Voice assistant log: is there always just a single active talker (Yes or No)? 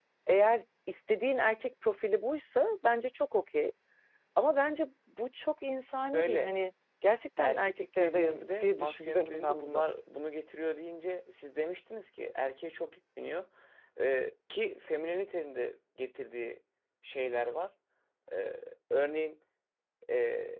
No